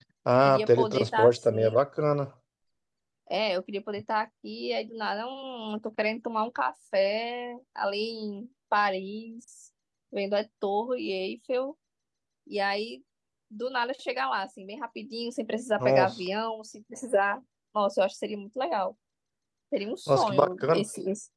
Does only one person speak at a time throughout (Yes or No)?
No